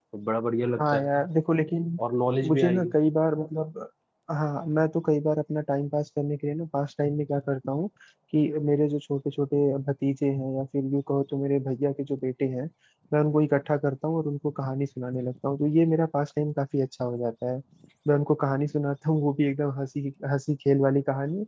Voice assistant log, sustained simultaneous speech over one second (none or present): none